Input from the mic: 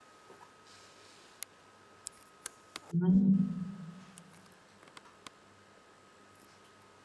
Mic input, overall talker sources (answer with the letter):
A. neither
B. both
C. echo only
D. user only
D